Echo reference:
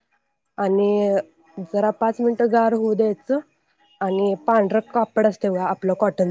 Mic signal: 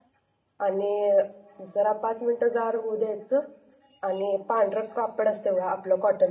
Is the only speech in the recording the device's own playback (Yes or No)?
Yes